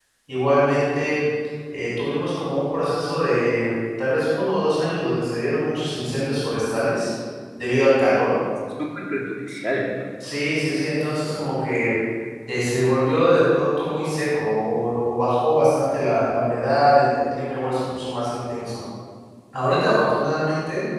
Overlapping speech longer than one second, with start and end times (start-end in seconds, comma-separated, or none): none